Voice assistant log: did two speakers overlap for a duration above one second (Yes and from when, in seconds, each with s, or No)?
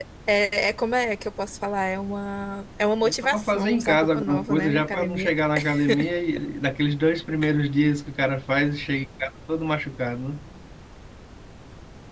Yes, from 3.0 s